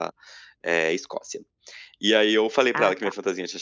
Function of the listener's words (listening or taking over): listening